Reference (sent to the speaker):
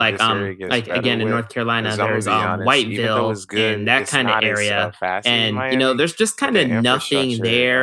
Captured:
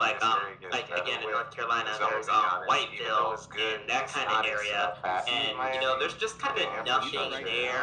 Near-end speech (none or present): present